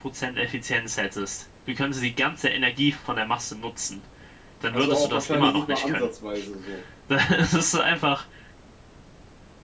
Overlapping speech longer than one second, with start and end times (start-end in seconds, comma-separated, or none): 4.7-6.1